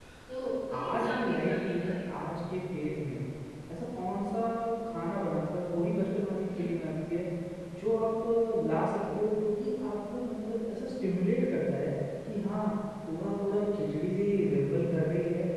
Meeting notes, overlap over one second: present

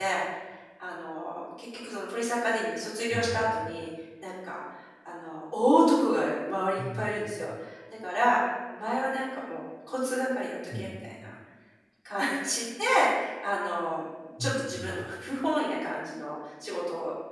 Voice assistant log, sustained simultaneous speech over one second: none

